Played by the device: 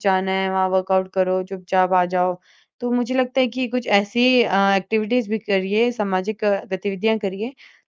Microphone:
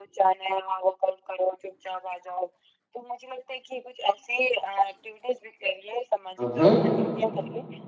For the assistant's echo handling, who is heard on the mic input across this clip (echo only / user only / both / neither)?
both